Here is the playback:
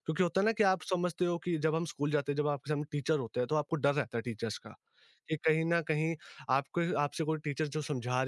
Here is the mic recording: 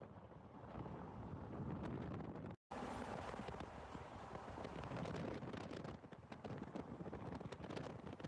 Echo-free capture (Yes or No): Yes